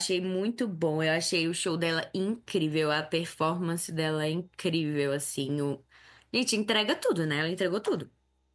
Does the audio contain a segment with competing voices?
No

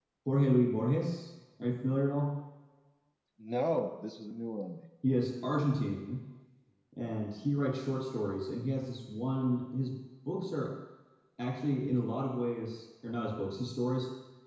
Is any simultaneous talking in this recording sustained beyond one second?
No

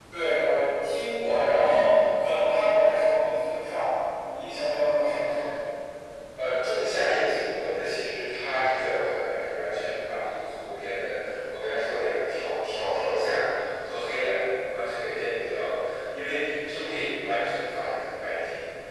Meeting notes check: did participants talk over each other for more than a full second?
No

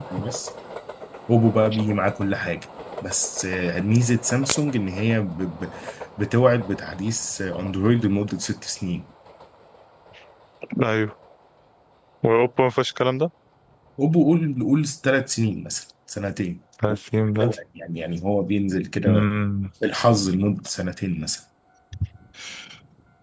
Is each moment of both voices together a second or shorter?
Yes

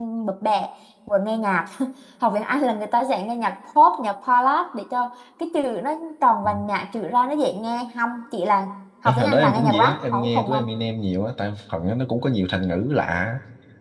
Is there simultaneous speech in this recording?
Yes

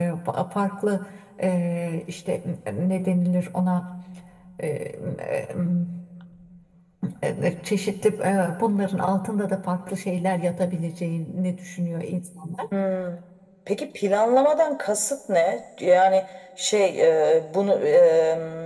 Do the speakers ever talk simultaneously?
No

